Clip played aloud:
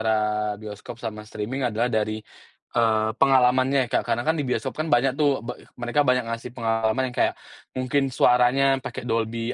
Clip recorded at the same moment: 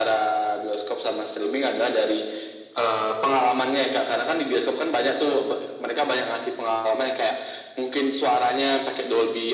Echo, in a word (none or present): present